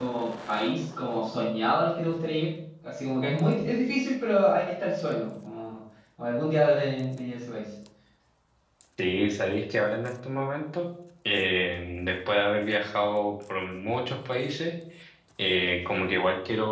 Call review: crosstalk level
none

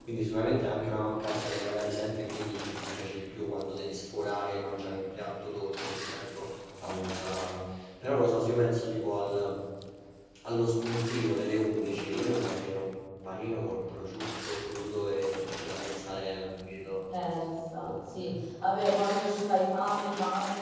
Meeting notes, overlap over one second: none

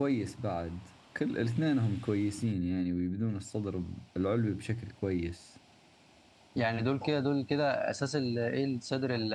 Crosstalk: none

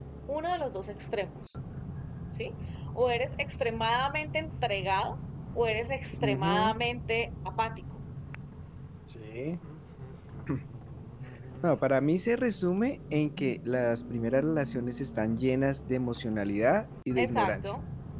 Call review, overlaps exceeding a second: none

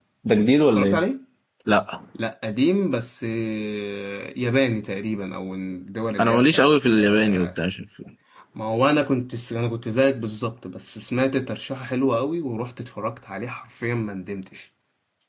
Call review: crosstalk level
present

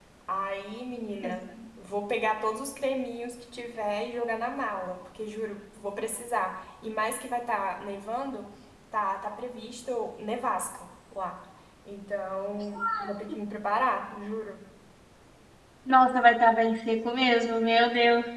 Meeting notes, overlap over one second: none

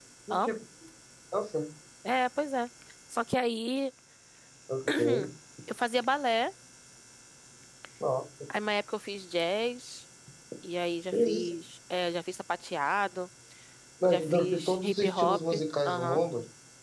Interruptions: present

